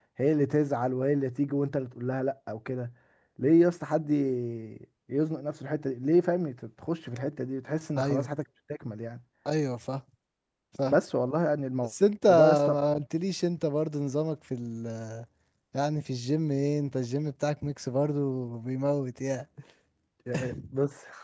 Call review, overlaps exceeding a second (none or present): none